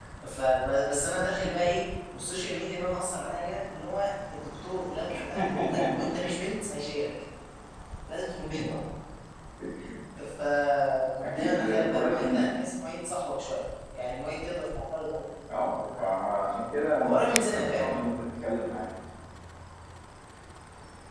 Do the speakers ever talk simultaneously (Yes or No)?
Yes